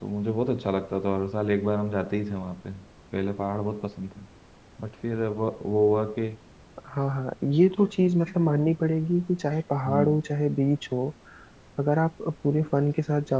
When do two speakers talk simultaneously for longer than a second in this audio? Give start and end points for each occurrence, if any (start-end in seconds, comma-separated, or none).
none